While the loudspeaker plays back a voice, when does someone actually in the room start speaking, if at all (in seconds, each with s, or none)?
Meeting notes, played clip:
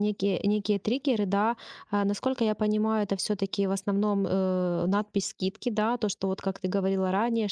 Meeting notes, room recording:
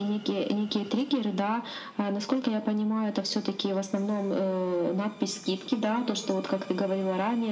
none